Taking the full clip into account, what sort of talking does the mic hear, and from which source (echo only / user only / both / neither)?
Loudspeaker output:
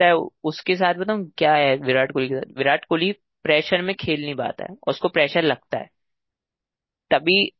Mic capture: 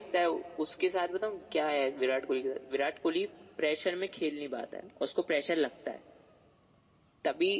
echo only